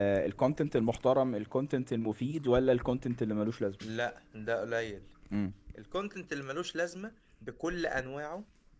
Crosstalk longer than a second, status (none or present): none